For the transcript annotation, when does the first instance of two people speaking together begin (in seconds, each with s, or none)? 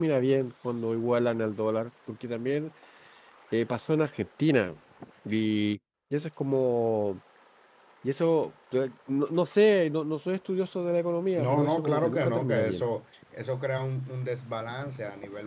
11.3 s